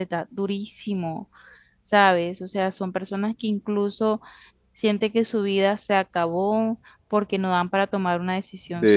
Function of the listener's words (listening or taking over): taking over